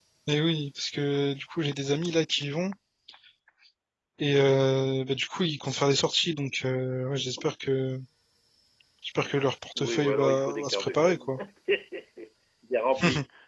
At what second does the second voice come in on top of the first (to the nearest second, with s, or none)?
10 s